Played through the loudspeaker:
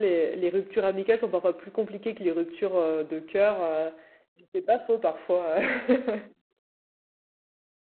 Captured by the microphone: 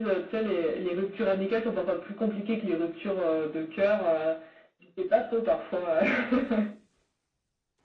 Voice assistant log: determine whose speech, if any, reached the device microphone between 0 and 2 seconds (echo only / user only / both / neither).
echo only